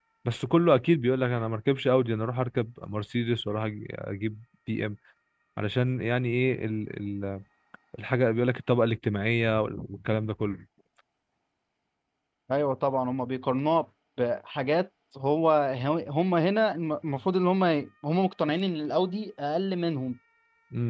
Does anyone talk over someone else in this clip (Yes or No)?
No